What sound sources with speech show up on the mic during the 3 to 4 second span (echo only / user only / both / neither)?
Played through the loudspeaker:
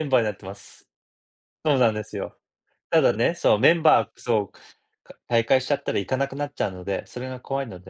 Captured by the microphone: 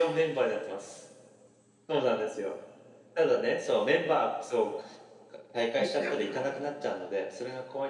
echo only